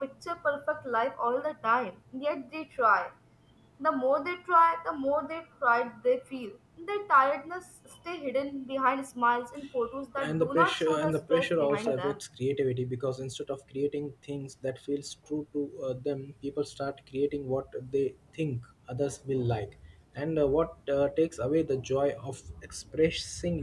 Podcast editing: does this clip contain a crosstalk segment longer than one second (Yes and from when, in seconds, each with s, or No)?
Yes, from 10.2 s